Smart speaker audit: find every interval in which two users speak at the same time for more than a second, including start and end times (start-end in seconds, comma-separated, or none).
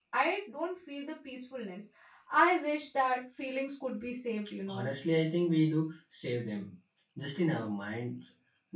none